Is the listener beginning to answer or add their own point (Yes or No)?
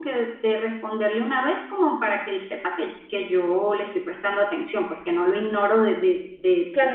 Yes